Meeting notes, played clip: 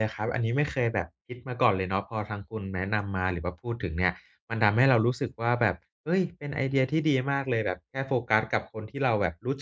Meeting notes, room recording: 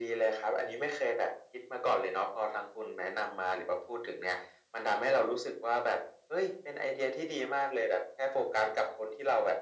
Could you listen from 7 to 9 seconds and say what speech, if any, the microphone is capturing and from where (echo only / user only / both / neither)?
echo only